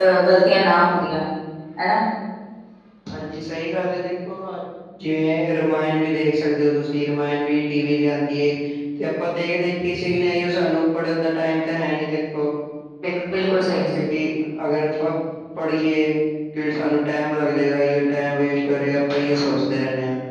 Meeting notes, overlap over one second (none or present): none